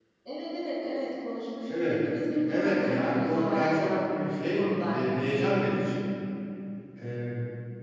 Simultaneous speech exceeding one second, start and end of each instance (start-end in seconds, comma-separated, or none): 2.5-3.9